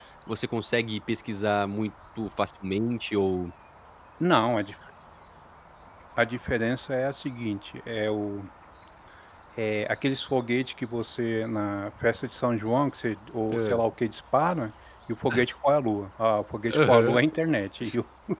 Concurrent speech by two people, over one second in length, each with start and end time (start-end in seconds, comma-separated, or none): none